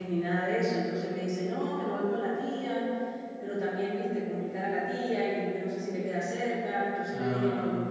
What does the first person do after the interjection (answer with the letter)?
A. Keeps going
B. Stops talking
A